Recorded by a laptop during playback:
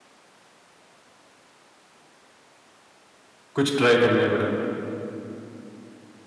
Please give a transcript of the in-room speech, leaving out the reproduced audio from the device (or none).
कुछ ट्राई करना है बड़ा।